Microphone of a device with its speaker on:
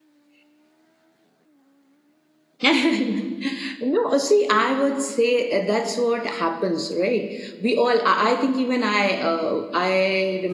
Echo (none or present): none